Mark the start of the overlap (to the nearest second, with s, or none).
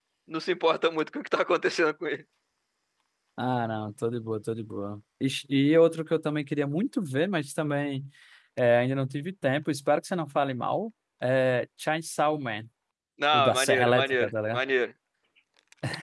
13 s